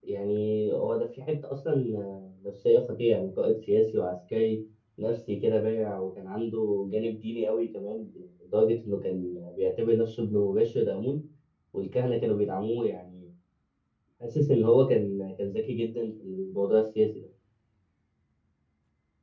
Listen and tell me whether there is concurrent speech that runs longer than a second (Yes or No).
No